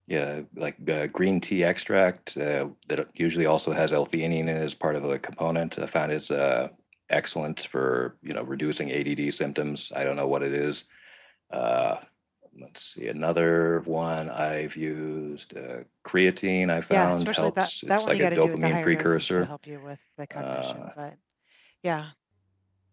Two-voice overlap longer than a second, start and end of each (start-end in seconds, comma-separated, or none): 16.9-19.5